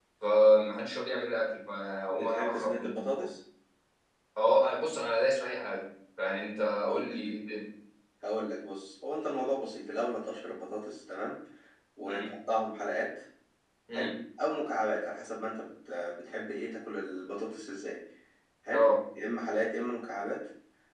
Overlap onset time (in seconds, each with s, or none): 2.1 s